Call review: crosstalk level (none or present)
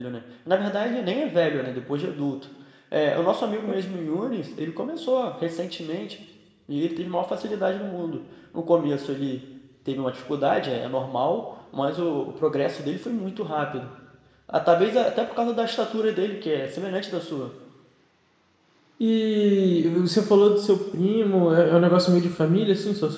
none